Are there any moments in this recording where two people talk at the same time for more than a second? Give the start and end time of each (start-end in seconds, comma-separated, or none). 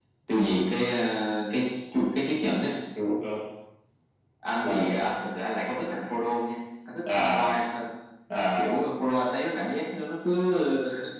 none